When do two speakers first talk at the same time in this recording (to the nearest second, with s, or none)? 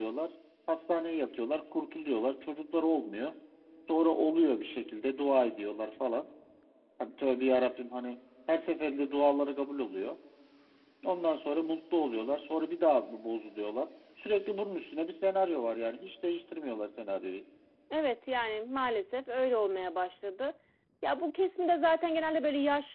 none